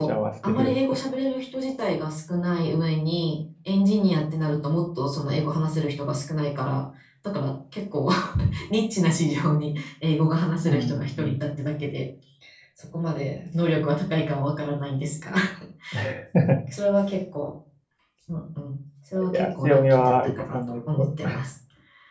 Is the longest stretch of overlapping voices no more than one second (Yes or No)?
No